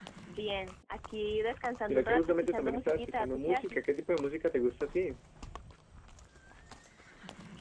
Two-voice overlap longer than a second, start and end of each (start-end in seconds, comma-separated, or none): 1.9-3.9